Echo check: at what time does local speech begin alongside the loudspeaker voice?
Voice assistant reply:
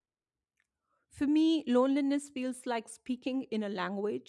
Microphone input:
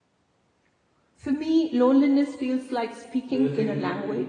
3 s

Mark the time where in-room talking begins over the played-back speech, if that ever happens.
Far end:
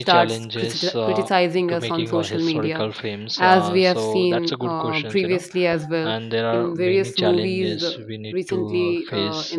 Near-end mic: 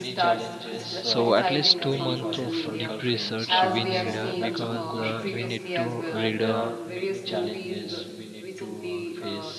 1 s

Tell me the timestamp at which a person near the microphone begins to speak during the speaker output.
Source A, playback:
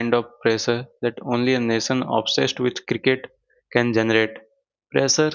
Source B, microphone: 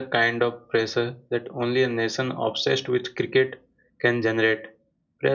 none

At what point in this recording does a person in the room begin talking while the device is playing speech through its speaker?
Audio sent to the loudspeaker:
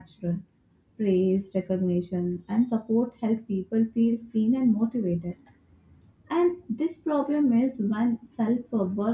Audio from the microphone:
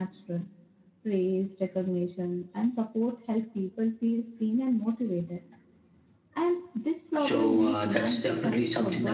7 s

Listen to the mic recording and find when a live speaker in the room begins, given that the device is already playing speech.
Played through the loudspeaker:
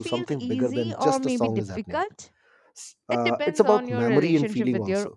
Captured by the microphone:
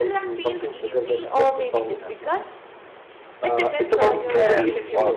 4 s

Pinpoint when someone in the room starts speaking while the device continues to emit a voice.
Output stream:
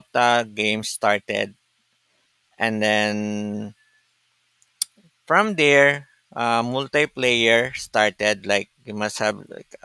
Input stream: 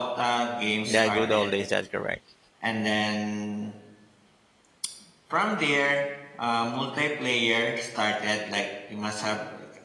1 s

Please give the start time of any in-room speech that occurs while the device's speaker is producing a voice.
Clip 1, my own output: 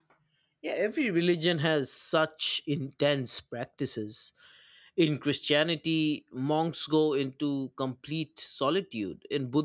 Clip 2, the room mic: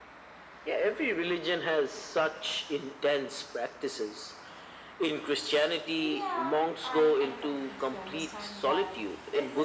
6 s

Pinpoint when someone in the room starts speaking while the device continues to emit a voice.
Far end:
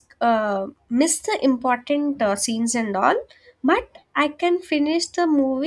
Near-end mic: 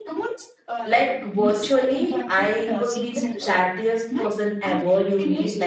1 s

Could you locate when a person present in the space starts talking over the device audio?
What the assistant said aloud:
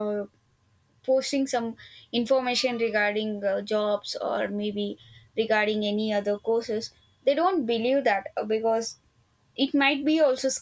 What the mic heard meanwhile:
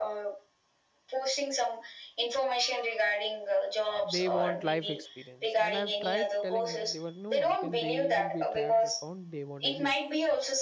4 s

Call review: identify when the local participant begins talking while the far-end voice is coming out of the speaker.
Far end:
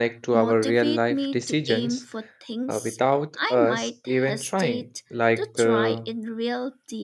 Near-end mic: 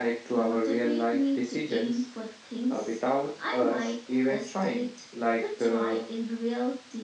none

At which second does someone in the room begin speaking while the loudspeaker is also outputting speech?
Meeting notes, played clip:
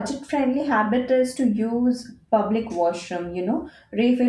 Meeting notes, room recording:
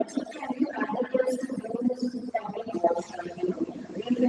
none

